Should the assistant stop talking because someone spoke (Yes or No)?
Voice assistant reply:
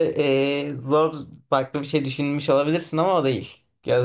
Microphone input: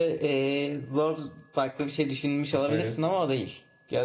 Yes